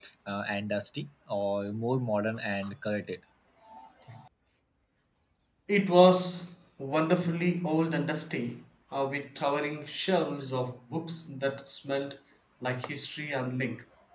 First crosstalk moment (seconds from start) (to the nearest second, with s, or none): none